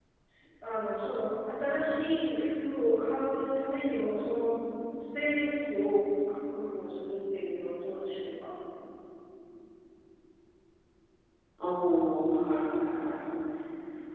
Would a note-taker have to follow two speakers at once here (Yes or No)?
No